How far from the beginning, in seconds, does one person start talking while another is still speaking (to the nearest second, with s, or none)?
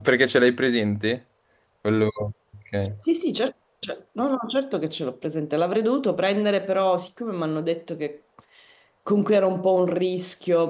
none